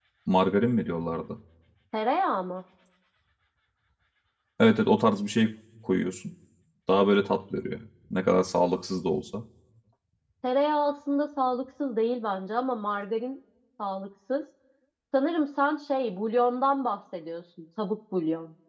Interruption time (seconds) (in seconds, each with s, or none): none